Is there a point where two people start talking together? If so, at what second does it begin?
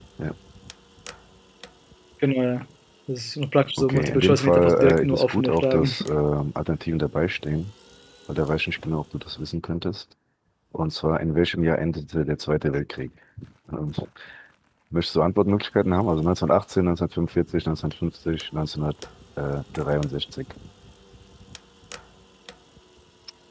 3.8 s

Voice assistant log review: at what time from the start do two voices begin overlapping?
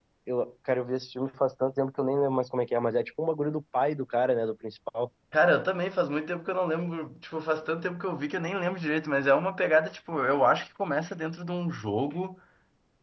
none

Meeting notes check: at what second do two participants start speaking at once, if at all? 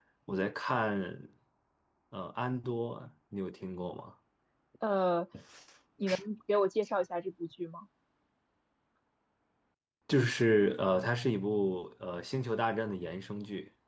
none

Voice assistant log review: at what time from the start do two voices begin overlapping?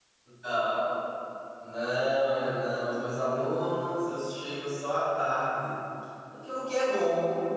none

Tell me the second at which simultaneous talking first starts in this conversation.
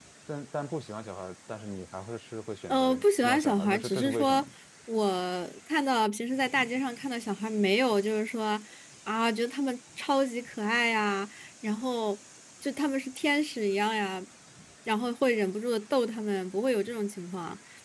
2.7 s

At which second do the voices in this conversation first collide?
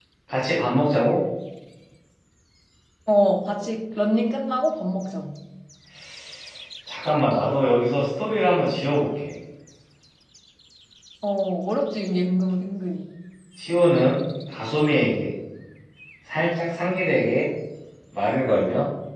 none

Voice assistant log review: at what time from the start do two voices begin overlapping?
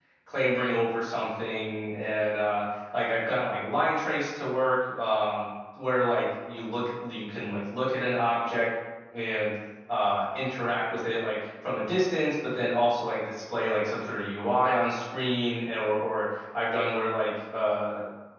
none

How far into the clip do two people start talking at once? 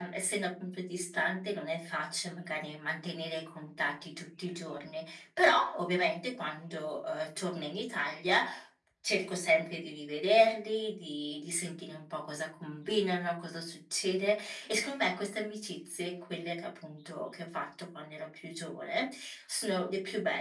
none

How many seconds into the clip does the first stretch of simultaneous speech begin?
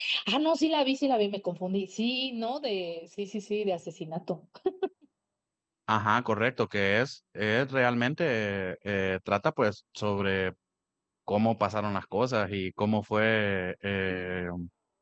none

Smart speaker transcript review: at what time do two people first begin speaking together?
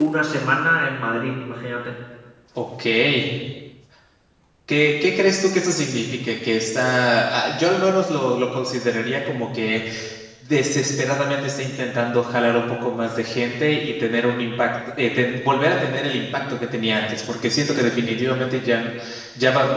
none

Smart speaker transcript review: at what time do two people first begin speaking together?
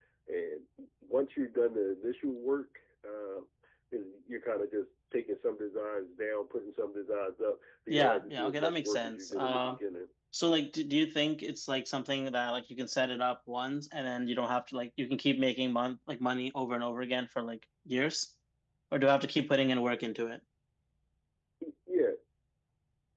7.9 s

